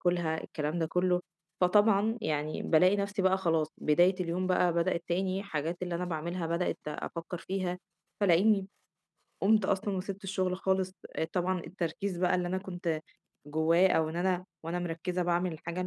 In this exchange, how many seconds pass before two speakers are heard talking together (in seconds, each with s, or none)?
none